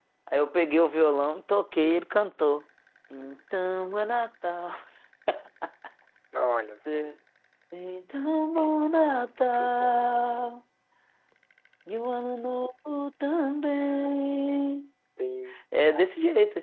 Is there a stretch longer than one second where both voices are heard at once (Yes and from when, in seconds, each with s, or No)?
No